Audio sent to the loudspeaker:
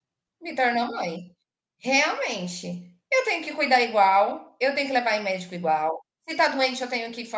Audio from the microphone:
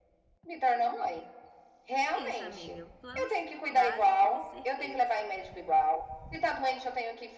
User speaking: Yes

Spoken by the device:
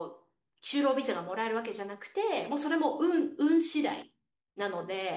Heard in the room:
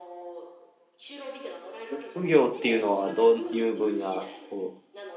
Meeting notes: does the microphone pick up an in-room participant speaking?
Yes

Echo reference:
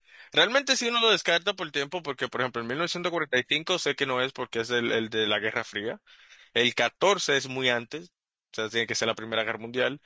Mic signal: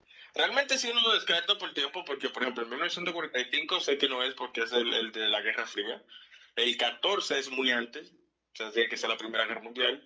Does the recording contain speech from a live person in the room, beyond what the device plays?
No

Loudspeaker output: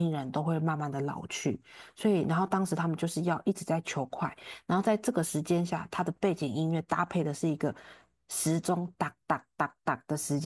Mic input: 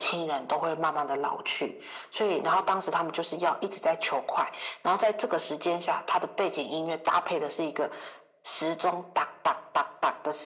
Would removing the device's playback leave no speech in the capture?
Yes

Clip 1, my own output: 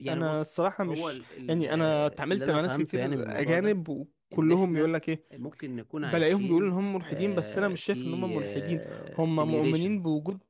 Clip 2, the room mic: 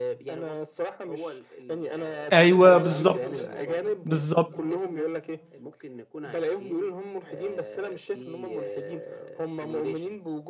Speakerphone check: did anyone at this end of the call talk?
Yes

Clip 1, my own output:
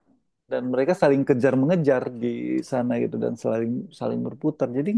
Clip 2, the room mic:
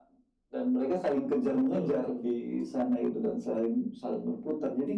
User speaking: Yes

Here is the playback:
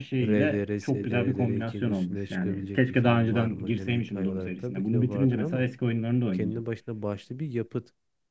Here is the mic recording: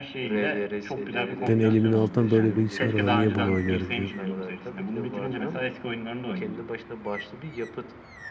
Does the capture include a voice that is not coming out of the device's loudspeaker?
Yes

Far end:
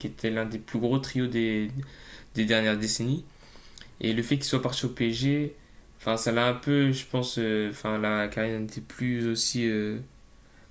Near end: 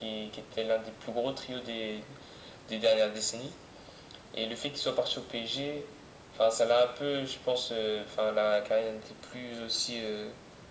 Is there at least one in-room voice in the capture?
No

